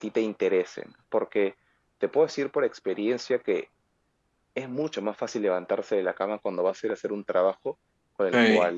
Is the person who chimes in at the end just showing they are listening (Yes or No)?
Yes